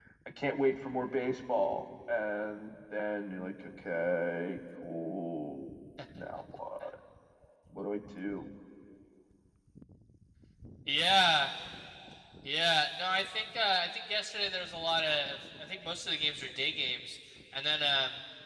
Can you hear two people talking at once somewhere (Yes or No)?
No